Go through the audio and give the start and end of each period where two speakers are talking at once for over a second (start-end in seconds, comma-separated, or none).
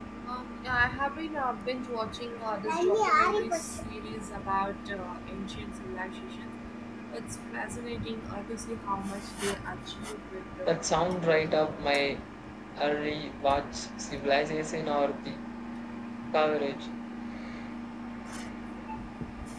10.7-12.1